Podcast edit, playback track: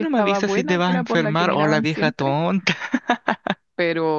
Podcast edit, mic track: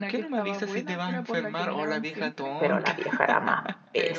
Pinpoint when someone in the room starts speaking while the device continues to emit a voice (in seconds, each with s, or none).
2.6 s